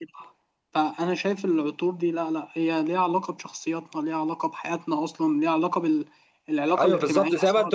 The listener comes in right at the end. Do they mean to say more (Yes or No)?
Yes